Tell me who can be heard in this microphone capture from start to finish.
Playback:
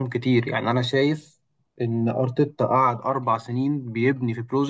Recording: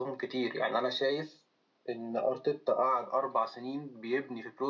echo only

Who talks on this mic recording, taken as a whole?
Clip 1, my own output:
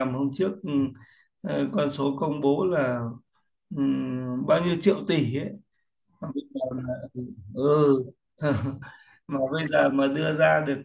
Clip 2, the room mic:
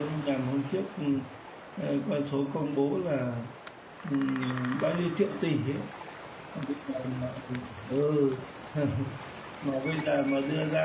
echo only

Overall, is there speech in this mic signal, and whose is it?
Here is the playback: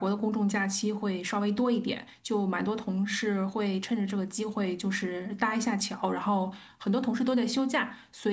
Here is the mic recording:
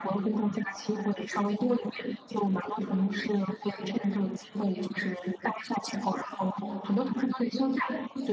echo only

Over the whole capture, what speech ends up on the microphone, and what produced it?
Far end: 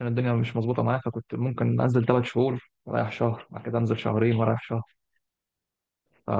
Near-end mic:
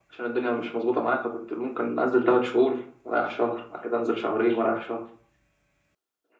echo only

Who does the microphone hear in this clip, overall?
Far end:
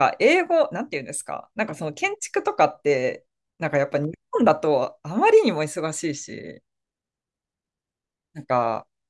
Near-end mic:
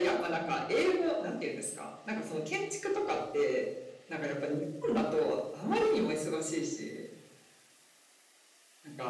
echo only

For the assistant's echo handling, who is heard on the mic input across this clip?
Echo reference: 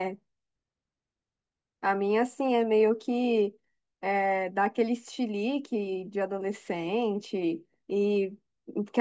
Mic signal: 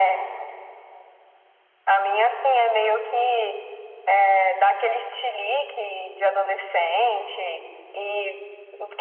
echo only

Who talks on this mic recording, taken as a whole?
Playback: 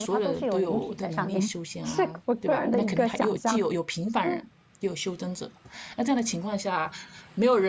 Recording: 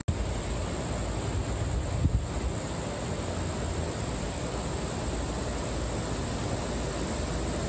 neither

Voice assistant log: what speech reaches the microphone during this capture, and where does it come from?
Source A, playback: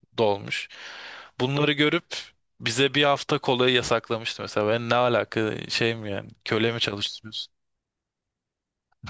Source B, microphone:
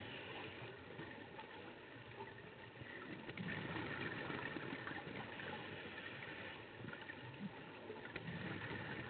neither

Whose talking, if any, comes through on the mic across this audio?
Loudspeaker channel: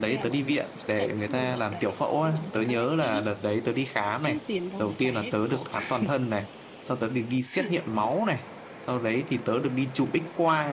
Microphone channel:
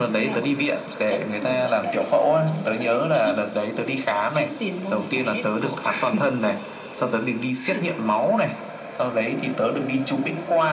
echo only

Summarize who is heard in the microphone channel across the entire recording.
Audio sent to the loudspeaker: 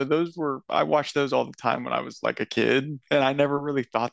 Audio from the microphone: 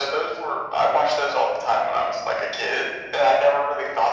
echo only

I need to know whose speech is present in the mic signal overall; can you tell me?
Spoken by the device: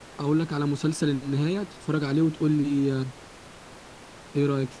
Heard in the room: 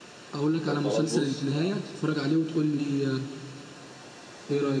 both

